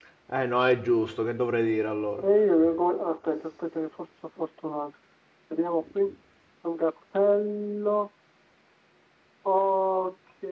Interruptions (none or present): none